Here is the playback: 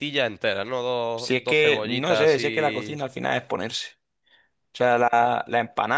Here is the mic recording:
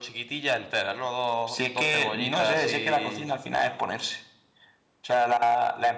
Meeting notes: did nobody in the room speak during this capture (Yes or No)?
Yes